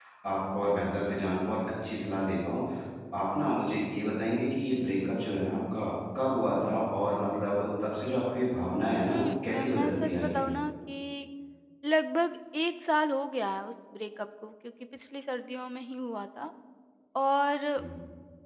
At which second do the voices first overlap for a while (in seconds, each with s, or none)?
9.1 s